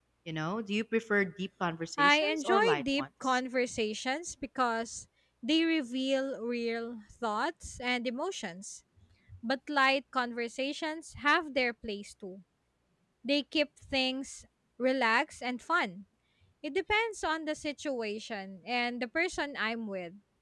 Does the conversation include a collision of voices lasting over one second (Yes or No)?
Yes